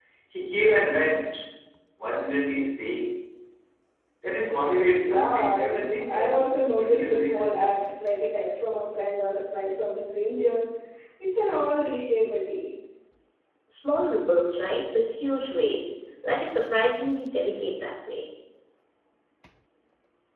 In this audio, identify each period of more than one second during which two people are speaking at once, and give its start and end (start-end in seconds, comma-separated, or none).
5.0-7.6